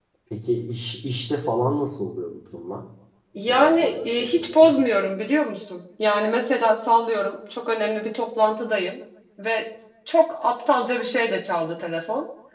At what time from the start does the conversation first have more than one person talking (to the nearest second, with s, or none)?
3 s